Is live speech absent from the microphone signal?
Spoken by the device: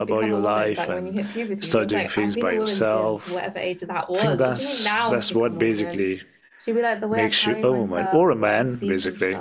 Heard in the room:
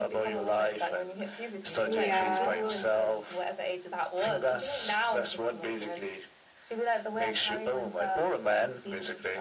No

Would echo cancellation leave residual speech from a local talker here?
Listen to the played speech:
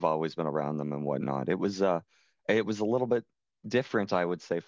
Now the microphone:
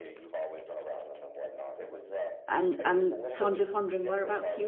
Yes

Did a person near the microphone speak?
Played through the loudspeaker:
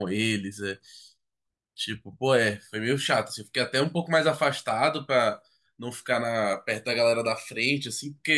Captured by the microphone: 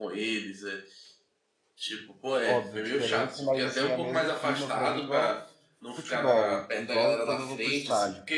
Yes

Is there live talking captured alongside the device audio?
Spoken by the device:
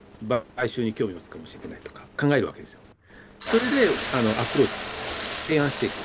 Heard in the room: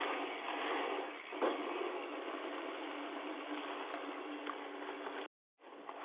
No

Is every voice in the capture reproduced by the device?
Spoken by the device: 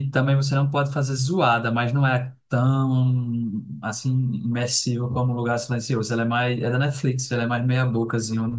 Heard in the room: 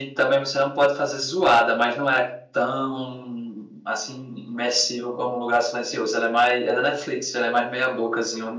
Yes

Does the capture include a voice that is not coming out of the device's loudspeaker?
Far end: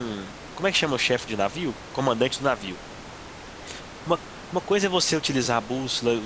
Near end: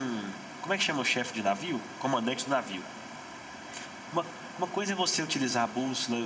No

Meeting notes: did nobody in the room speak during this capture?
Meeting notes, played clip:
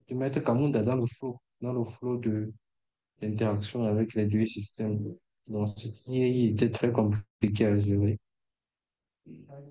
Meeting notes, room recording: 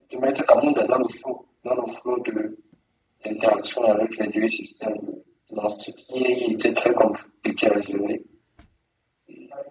Yes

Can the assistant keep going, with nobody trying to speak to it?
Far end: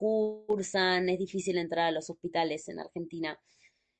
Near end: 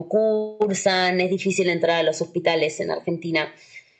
Yes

